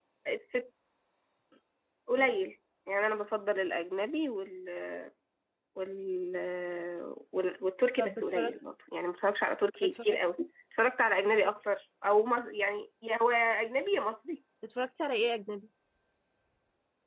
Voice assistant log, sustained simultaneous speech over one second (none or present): none